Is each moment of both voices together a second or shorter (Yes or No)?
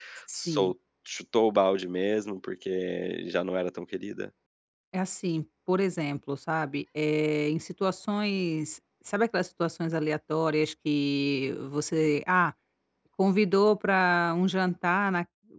Yes